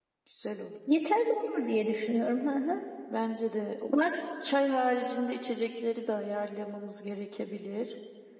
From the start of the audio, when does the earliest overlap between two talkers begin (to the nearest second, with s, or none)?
none